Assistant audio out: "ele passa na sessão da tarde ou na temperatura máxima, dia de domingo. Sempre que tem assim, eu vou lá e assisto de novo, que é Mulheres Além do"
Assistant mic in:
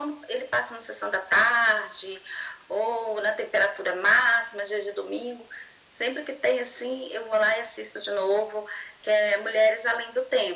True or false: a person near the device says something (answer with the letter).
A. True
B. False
B